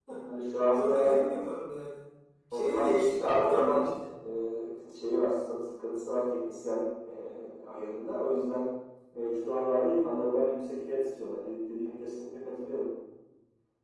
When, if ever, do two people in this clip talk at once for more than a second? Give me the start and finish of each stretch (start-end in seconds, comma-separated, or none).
2.5-3.9